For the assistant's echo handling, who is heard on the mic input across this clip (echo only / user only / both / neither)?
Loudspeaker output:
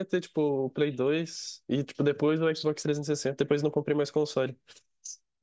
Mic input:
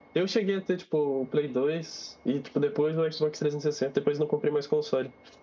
echo only